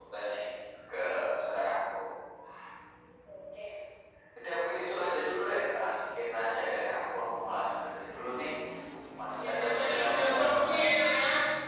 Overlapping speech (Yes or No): Yes